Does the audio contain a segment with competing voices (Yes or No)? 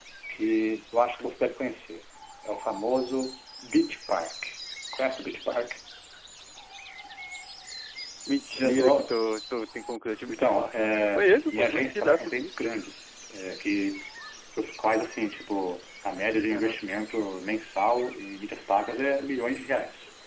Yes